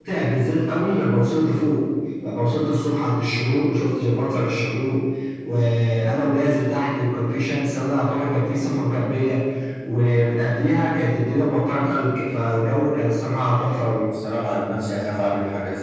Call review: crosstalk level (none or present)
none